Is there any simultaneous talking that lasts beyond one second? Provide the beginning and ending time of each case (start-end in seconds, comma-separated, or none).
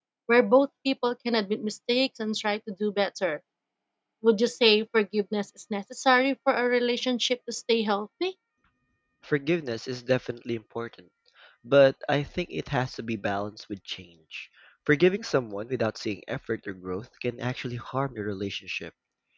none